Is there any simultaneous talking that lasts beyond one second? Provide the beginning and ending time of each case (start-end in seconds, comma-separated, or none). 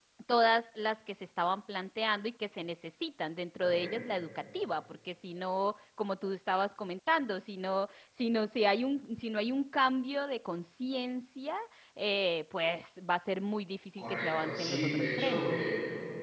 14.0-15.6